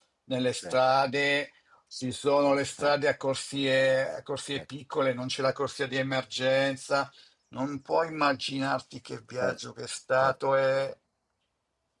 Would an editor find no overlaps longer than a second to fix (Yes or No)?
Yes